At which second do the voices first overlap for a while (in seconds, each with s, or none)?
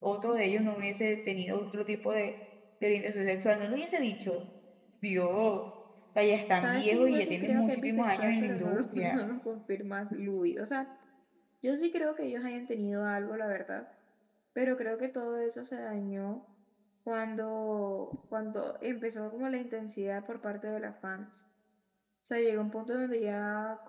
6.6 s